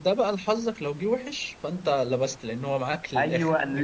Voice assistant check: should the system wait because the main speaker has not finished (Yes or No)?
No